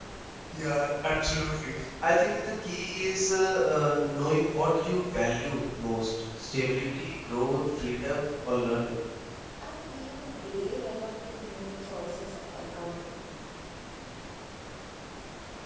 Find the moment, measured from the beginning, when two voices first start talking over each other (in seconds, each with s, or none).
none